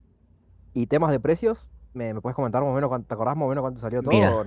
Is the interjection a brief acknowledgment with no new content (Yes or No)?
No